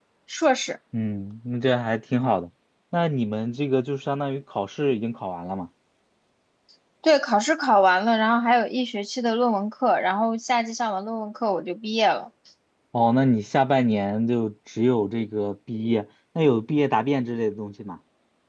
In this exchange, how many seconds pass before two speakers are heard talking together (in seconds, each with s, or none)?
none